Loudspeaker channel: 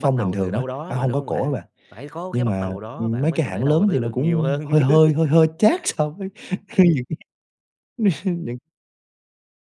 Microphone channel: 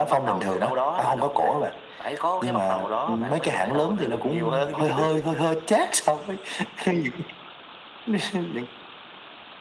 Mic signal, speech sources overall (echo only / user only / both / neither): echo only